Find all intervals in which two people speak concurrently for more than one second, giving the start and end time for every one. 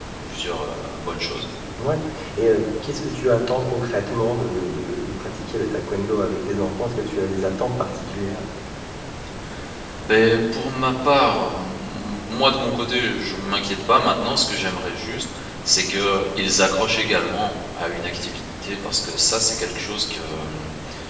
none

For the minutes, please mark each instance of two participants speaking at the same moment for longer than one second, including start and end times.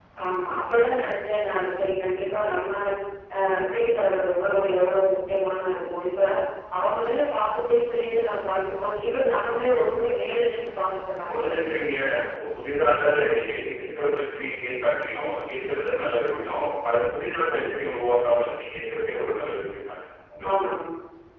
none

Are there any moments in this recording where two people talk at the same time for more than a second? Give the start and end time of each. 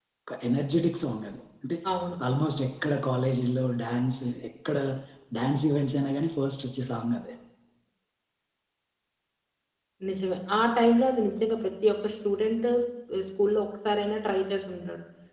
none

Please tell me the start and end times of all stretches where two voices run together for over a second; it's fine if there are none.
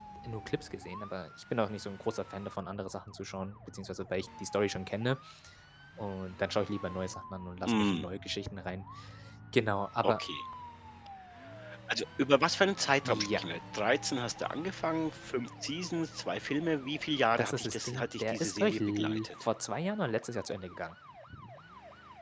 17.4-19.5

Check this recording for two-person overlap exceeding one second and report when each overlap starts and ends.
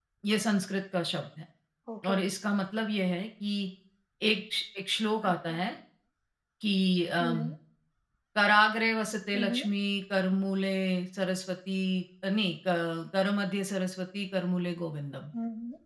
none

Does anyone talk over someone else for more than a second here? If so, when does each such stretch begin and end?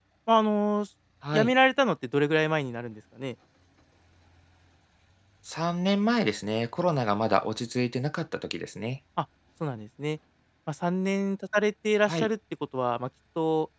none

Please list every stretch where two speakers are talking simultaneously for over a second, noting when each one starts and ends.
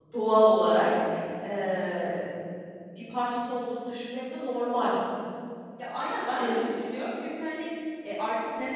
none

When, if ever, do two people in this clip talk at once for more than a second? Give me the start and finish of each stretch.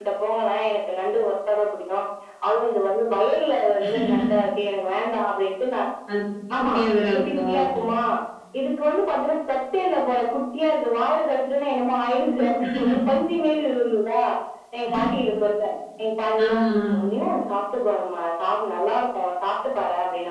none

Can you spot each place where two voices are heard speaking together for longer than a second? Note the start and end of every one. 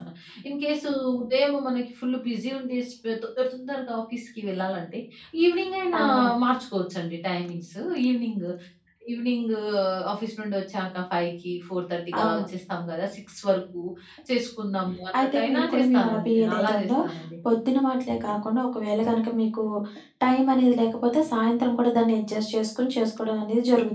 15.2-16.9

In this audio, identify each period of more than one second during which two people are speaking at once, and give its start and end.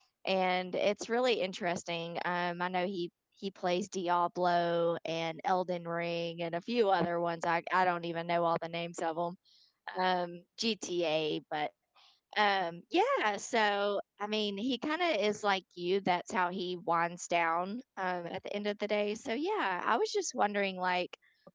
none

